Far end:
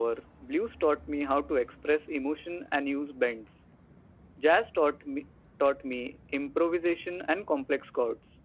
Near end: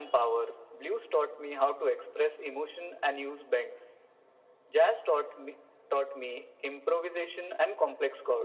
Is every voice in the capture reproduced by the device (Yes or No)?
Yes